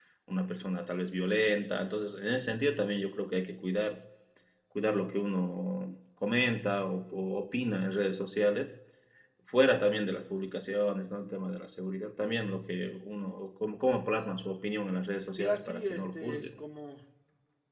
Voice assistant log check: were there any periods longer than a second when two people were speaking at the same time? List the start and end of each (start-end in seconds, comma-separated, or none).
15.4-16.6